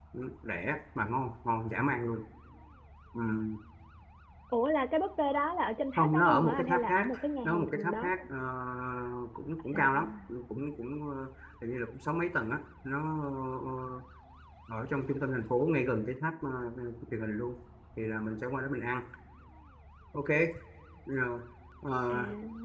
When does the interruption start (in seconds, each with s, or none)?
6.0 s